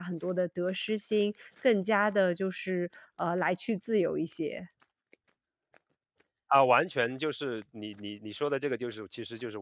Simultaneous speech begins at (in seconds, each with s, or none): none